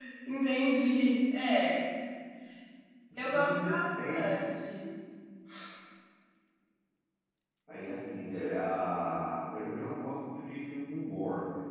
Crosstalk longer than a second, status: present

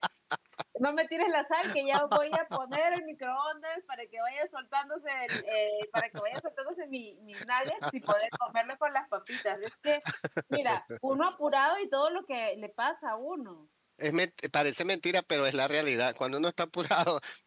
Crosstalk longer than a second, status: none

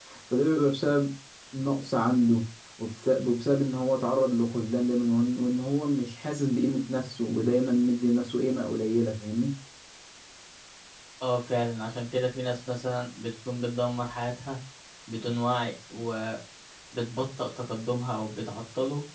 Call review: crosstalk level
none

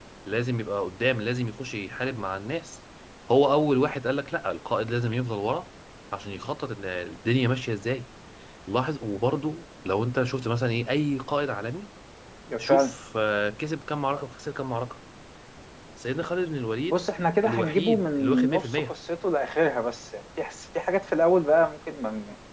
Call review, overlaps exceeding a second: present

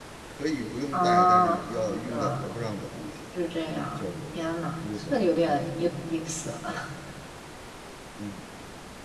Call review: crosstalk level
present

